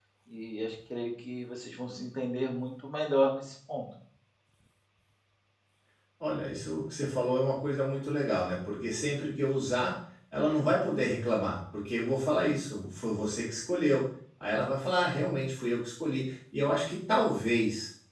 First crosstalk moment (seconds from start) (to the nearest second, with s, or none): none